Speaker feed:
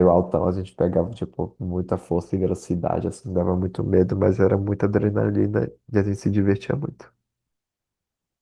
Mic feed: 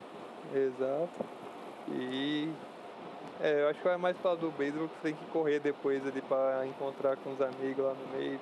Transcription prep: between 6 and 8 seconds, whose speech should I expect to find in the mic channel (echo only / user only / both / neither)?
user only